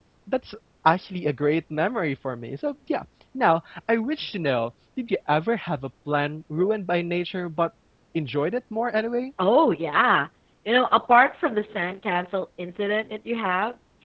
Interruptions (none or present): none